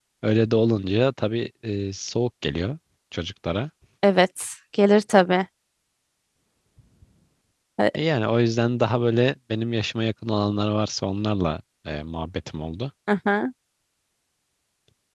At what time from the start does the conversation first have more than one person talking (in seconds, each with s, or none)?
none